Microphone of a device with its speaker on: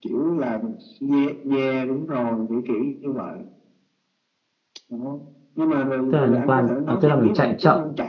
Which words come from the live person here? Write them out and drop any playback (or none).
tức là liên quan ờ, tức là mình chạy chậm